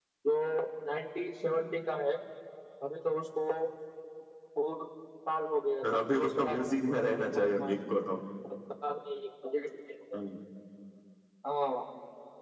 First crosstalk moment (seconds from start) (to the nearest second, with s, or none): 6 s